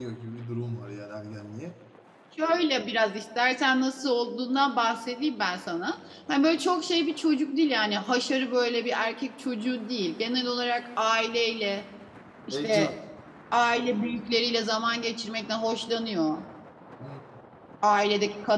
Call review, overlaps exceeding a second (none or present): none